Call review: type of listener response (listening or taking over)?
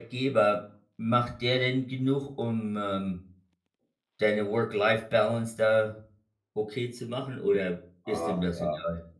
taking over